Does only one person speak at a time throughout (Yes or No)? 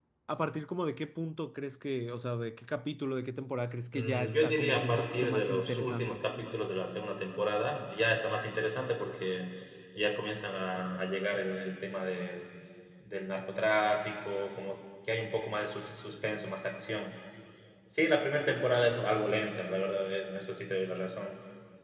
No